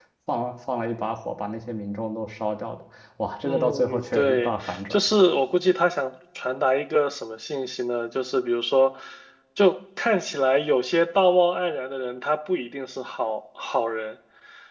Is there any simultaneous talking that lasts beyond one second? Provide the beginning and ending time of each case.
3.5-5.0

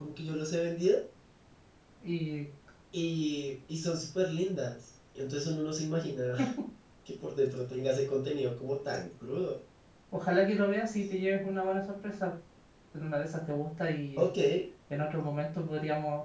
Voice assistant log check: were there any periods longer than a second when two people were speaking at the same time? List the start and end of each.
none

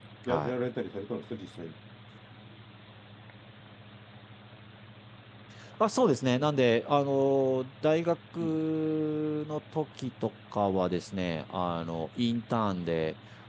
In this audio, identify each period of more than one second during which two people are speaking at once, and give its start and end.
none

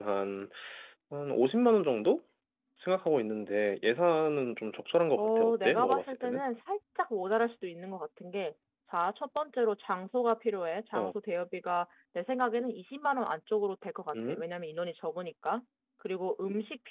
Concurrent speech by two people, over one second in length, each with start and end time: 5.2-6.4

